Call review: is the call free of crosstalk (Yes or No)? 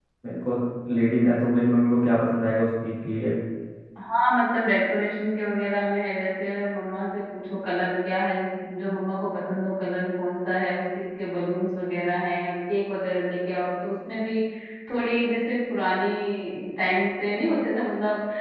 Yes